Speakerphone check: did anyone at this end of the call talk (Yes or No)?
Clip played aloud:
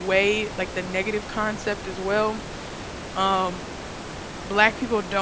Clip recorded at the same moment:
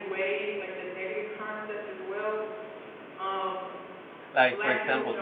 Yes